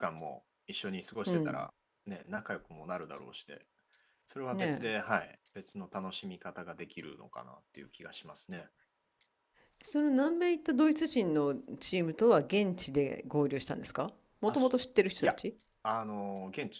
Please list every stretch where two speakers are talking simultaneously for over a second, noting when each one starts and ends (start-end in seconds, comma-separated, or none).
none